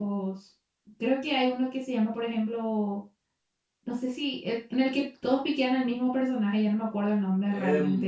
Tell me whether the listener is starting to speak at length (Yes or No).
Yes